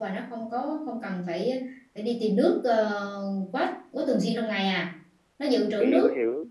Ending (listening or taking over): taking over